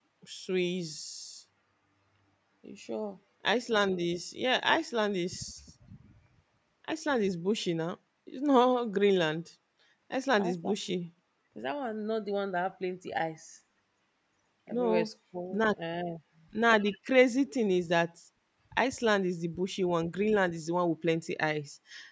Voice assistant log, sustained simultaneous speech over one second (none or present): none